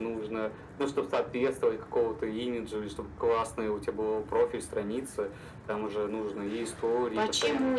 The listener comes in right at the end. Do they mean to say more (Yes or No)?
Yes